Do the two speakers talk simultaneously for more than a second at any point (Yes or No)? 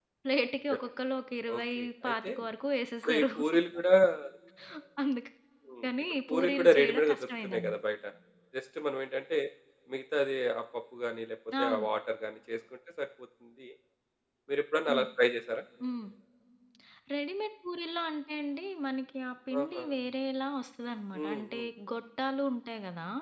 Yes